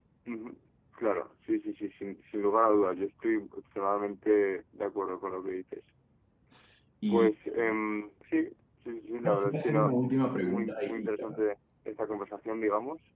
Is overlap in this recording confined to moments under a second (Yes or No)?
No